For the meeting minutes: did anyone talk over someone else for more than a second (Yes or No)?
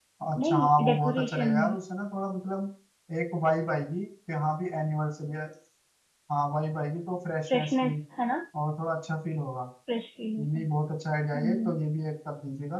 Yes